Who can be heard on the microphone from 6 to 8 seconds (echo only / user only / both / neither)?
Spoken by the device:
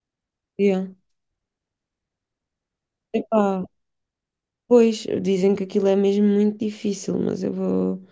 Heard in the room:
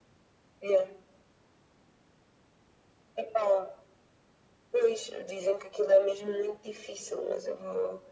echo only